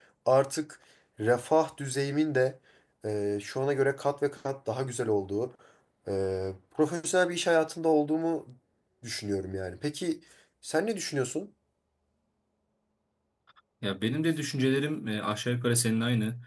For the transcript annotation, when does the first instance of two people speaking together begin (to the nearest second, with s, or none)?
none